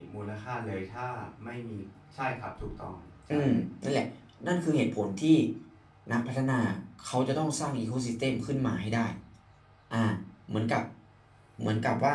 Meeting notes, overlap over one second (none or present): none